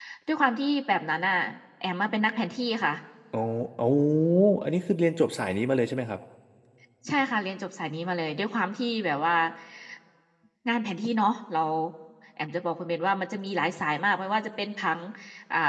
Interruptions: none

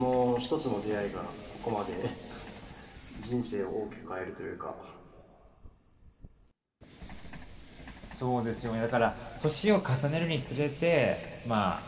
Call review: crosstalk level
none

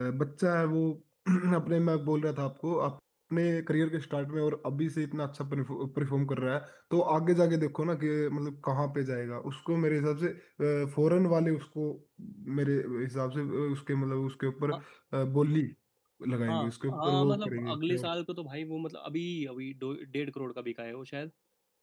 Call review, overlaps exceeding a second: present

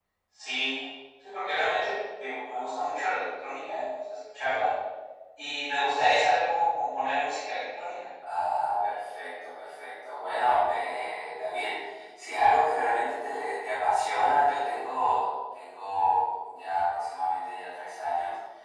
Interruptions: none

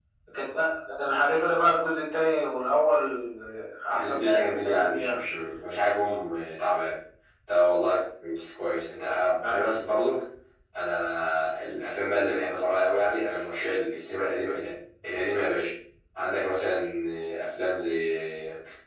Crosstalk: present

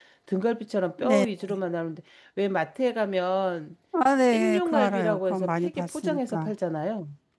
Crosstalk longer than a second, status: present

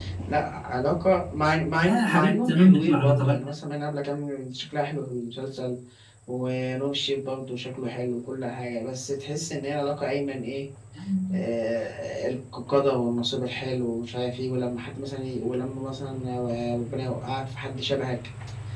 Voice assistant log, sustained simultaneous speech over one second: present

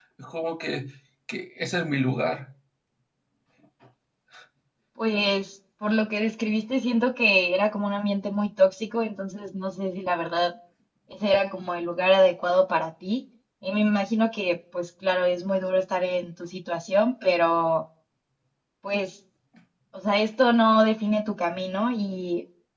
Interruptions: none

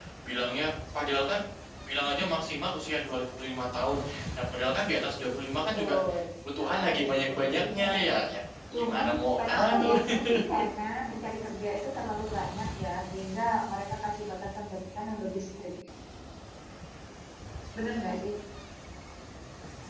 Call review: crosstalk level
present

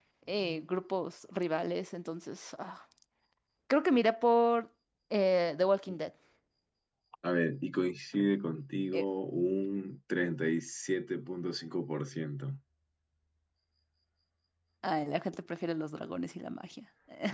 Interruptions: none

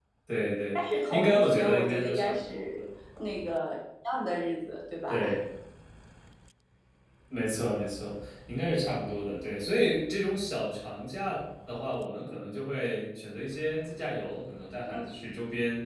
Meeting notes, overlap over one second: present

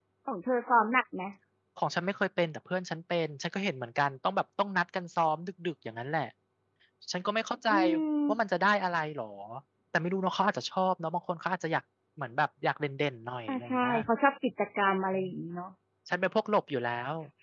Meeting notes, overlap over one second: none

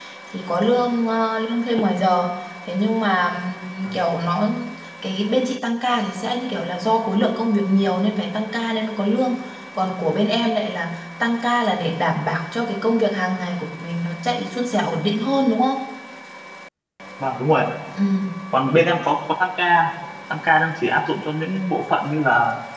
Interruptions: none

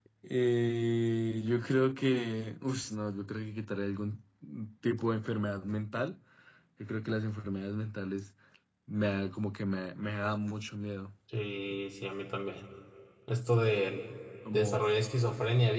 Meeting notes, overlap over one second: none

